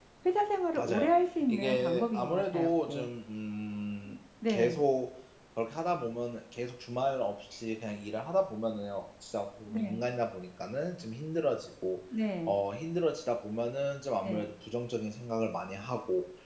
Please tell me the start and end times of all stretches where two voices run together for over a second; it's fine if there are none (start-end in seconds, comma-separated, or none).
1.5-3.1